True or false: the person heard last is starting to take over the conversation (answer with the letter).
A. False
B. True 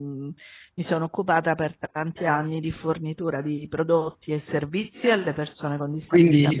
B